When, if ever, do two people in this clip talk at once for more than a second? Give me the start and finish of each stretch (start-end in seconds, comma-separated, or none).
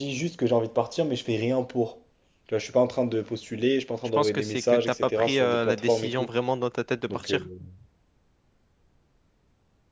4.2-6.3